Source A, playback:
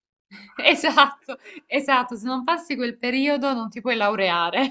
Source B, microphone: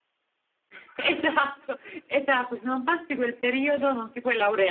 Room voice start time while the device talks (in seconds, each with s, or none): none